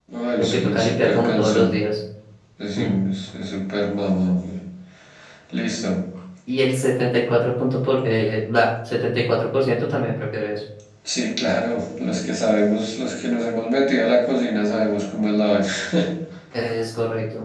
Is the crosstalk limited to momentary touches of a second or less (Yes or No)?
No